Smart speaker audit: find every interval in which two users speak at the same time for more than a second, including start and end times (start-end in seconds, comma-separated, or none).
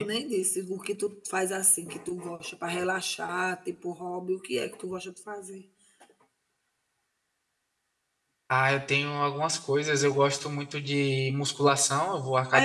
none